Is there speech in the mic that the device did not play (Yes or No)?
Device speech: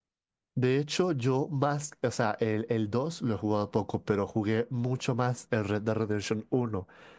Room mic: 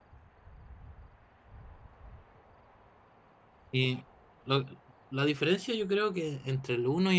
Yes